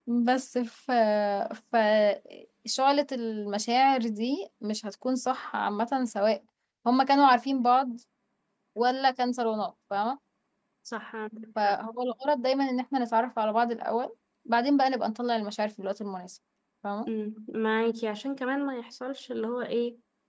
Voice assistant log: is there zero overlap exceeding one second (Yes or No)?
Yes